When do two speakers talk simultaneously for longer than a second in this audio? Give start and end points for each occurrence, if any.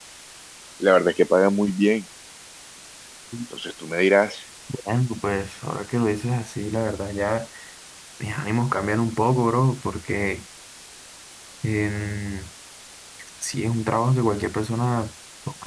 none

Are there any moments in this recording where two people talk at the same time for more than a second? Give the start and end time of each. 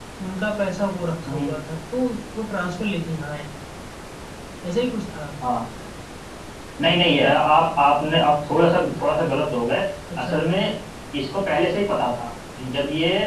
none

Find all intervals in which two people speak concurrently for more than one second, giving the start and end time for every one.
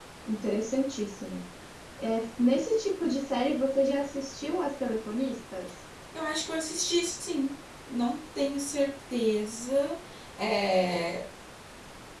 none

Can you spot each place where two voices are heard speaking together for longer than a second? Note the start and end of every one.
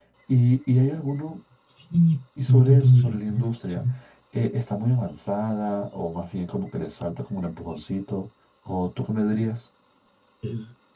2.5-3.8

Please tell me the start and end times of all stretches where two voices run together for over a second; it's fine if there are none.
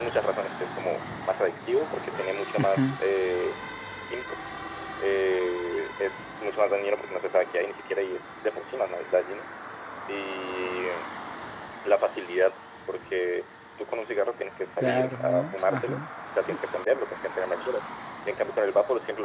14.8-16.0

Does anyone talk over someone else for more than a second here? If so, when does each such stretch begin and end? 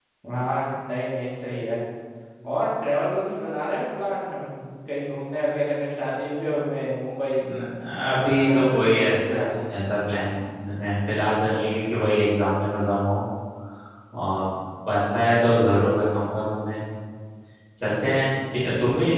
8.1-9.4

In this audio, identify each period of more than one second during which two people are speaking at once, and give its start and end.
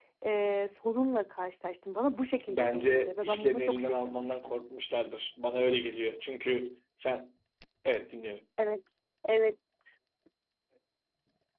2.5-4.5

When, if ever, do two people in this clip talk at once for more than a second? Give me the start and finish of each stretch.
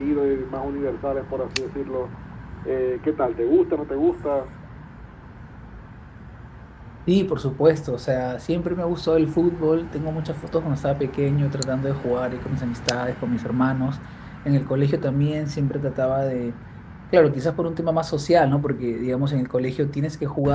none

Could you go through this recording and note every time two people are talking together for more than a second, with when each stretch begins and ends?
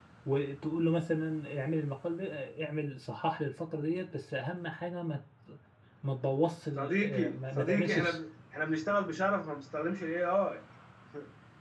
6.8-8.2

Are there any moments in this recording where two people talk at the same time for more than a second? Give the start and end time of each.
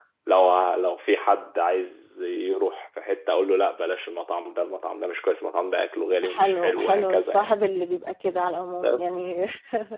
6.2-7.5

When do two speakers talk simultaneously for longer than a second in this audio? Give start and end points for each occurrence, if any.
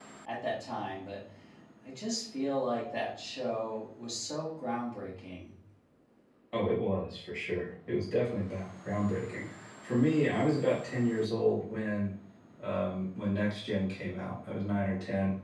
none

